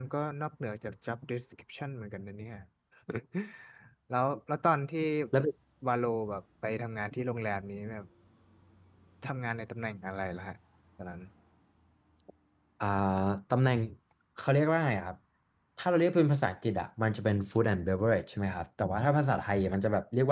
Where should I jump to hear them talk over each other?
none

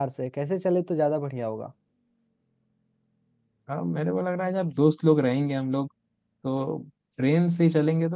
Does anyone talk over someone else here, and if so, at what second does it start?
none

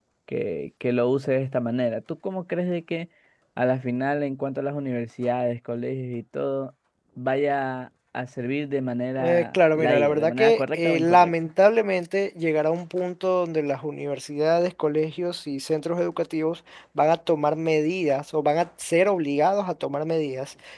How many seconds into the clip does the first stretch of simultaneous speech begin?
9.2 s

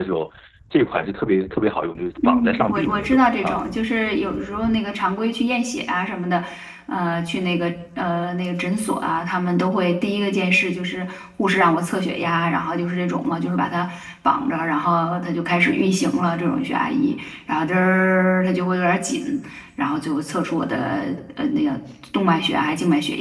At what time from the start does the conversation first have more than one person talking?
2.2 s

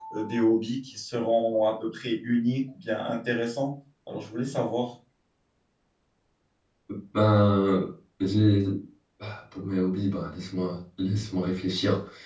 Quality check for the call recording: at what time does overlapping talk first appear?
none

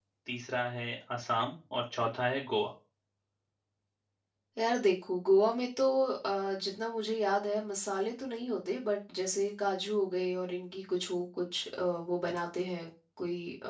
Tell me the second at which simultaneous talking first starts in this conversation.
none

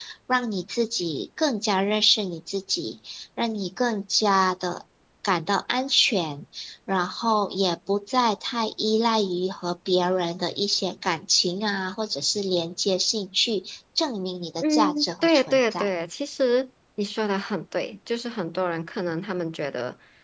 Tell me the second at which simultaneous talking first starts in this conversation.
14.6 s

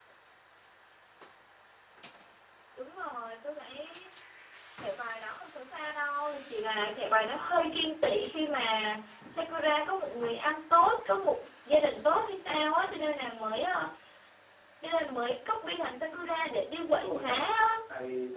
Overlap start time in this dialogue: 16.1 s

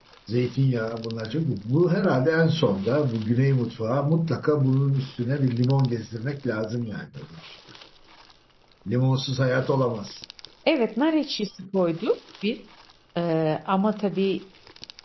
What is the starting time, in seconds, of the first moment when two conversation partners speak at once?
none

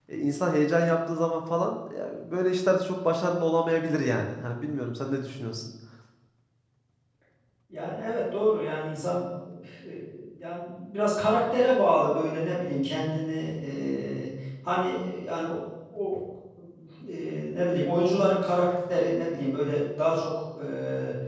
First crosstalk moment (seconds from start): none

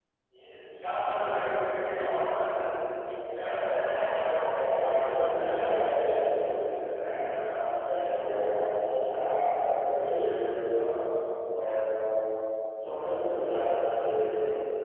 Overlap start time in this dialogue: 4.6 s

